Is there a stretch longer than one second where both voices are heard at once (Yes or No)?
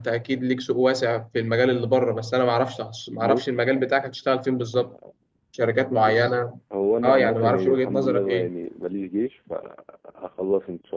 Yes